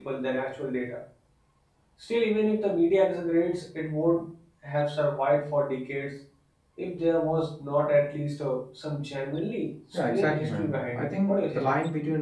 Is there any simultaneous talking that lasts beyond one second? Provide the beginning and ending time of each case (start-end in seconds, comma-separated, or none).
10.1-11.7